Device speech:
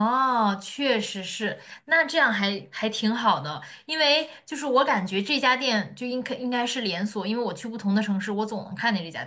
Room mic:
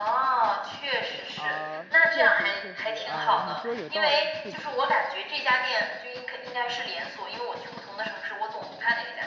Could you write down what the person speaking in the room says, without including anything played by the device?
啊，确实确实啊，你说有道理，是的。

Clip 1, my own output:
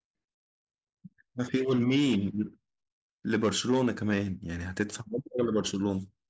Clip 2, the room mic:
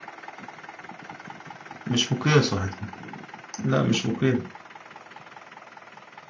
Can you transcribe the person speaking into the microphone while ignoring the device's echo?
مش مقياس واحد صفر. لا مش مقياس

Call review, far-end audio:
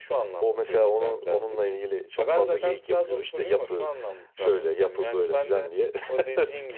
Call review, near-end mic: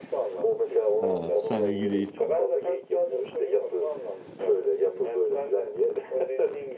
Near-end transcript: Ha, Sen ilgi değilsin.

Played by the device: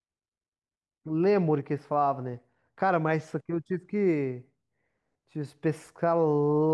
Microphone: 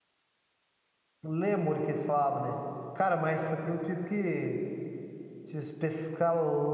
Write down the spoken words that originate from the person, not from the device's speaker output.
none

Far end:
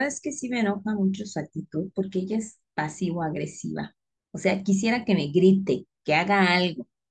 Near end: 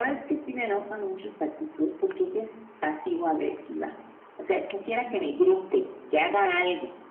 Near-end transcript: none

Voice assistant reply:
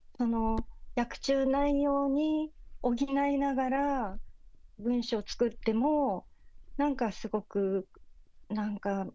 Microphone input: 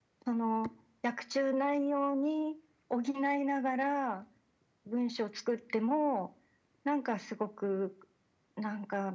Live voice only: none

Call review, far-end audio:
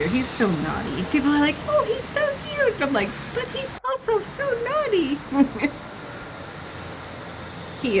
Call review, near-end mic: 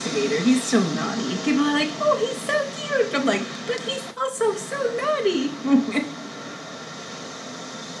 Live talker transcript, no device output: none

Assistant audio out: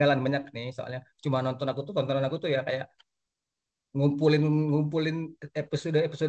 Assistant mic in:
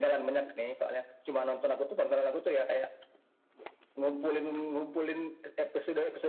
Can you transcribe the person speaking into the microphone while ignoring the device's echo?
none

